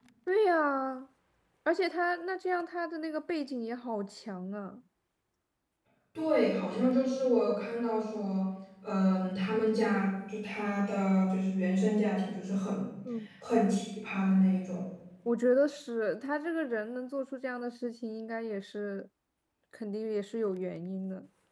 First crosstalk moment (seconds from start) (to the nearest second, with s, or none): none